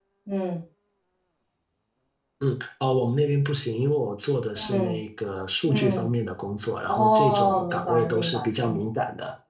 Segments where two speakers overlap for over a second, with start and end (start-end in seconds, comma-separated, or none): 6.9-8.9